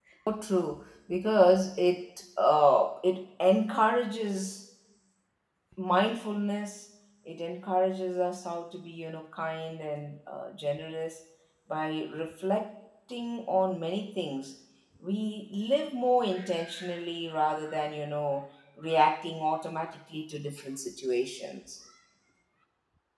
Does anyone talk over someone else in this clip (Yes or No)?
No